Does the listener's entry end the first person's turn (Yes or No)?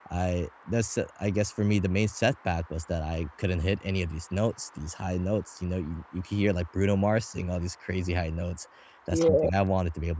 No